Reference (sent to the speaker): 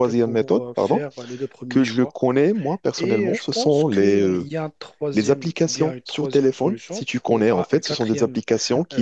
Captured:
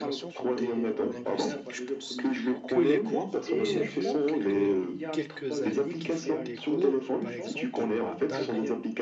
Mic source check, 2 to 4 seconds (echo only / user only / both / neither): both